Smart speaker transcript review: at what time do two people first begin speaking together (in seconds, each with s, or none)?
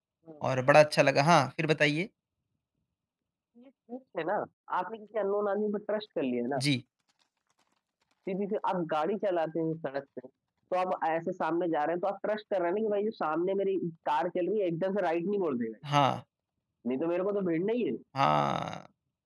none